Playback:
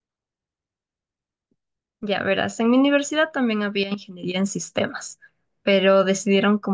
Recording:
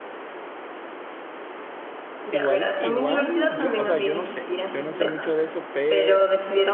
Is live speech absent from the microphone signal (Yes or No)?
No